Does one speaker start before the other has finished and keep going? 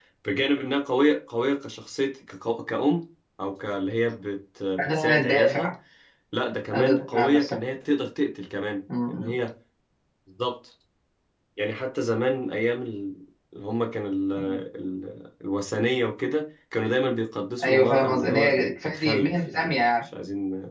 Yes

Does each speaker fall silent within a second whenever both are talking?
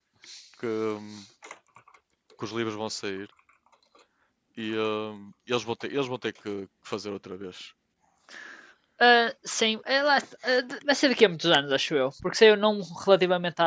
Yes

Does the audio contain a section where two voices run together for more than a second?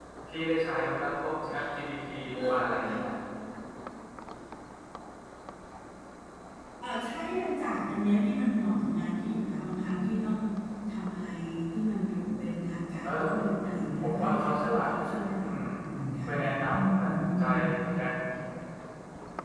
Yes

